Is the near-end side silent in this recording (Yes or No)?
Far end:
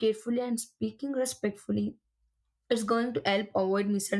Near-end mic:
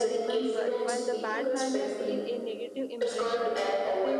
No